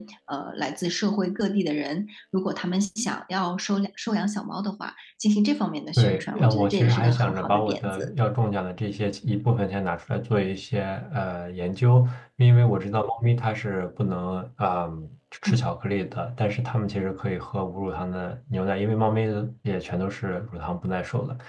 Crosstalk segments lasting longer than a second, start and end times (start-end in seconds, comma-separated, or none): 6.0-8.1